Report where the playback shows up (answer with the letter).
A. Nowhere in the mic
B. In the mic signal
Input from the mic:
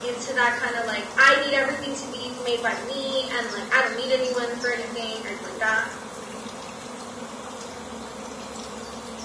A